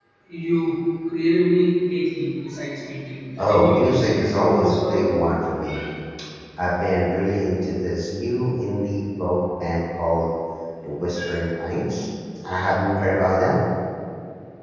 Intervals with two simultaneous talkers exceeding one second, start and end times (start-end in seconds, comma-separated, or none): 3.4-5.1